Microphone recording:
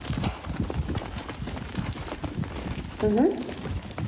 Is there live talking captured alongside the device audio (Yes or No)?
Yes